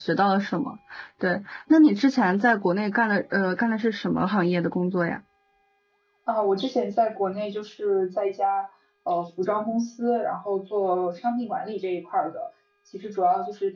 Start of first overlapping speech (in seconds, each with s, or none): none